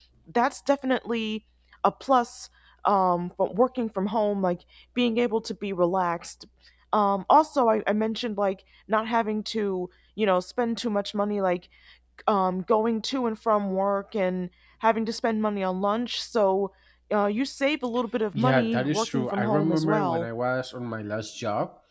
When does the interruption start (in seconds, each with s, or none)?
18.3 s